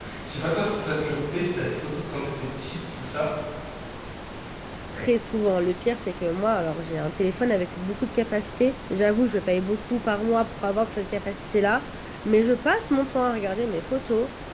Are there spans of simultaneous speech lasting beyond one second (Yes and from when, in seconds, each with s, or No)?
No